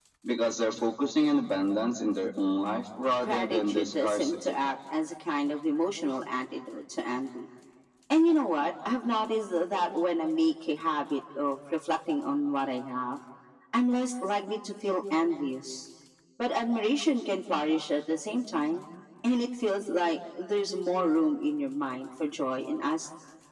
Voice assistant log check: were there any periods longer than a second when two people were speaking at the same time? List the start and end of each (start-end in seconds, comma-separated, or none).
3.2-4.6